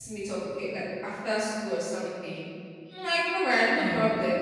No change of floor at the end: Yes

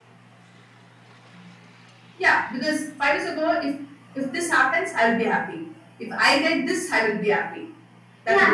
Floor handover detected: Yes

